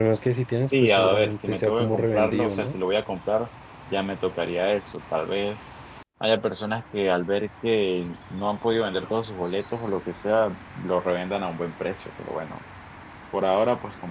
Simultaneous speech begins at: 0.8 s

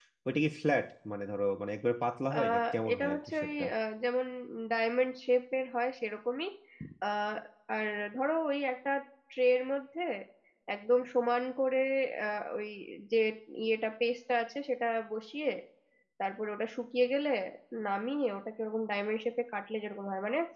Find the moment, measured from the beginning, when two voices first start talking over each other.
2.3 s

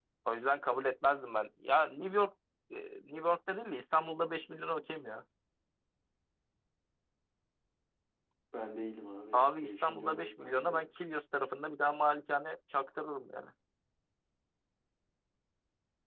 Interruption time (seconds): 9.3 s

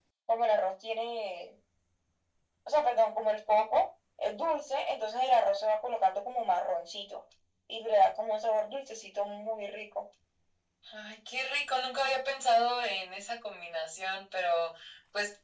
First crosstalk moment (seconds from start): none

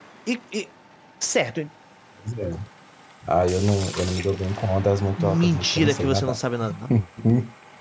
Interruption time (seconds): 5.2 s

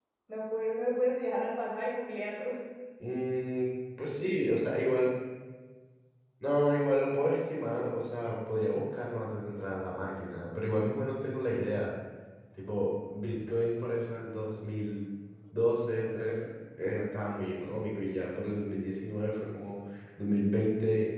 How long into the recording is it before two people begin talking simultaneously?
none

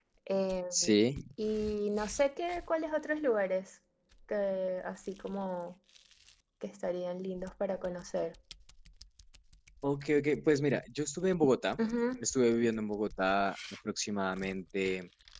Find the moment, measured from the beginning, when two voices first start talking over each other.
none

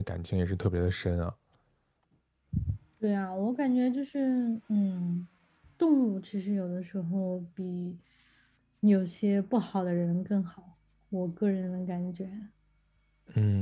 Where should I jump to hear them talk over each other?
none

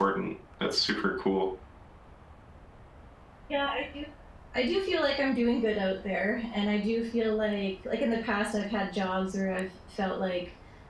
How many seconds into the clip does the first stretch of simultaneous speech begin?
none

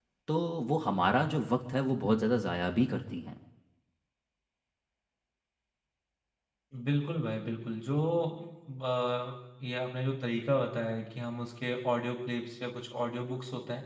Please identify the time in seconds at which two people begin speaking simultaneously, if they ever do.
none

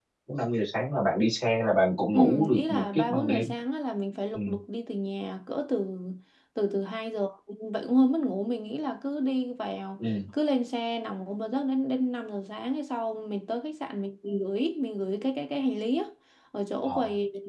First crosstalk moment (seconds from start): 2.1 s

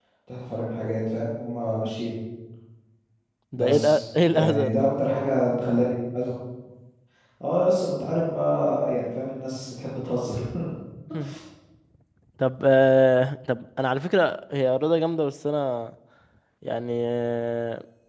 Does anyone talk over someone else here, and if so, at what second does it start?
3.5 s

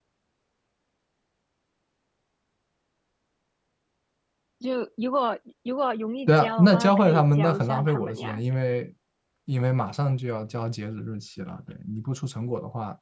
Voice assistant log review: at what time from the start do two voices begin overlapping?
6.3 s

